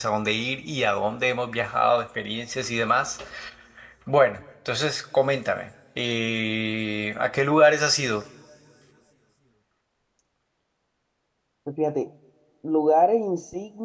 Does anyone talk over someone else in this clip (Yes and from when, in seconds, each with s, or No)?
No